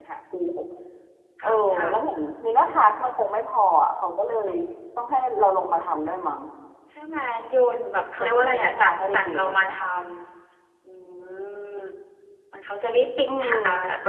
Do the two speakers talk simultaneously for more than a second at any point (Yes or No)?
Yes